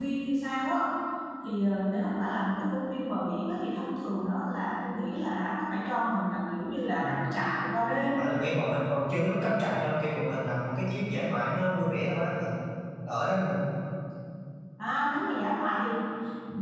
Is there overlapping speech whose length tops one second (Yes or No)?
No